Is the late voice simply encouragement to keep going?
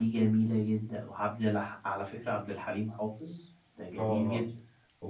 No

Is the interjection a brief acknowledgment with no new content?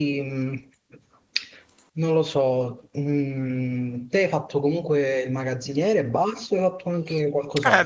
No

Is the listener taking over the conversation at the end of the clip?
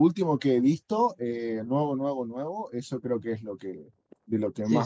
Yes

